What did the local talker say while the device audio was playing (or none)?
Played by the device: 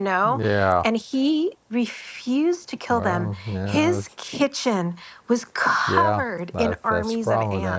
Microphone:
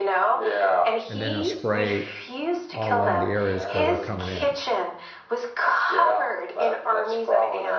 and then I'll spray all along the areas where they're coming in.